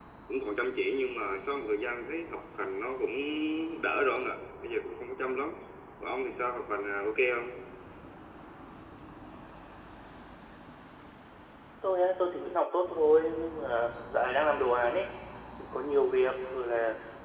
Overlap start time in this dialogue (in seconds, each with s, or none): none